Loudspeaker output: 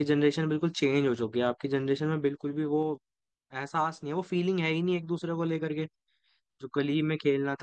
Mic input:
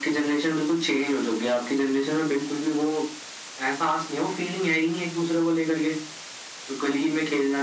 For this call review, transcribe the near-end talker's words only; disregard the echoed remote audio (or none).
none